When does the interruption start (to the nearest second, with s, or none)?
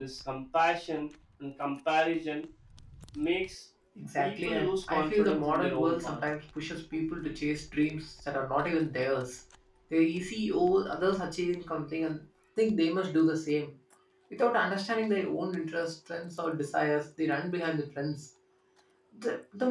4 s